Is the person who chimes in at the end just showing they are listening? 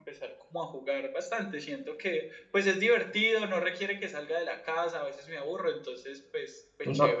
No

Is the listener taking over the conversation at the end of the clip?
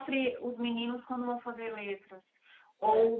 No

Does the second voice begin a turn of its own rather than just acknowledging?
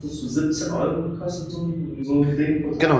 Yes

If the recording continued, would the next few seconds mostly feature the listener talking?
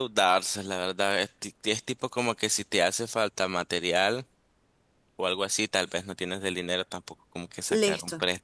No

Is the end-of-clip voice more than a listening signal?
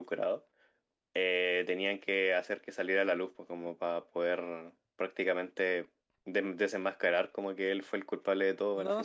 Yes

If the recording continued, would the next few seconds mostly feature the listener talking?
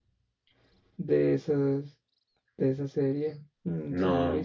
No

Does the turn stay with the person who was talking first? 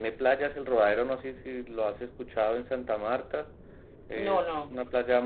Yes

